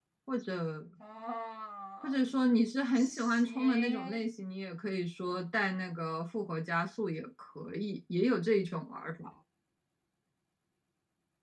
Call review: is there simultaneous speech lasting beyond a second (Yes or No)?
Yes